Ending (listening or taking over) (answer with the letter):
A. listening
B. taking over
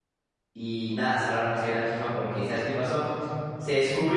A